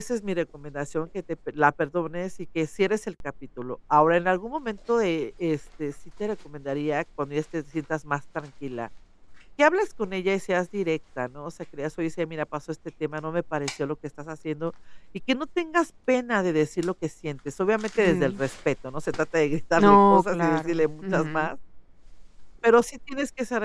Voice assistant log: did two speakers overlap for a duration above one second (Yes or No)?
Yes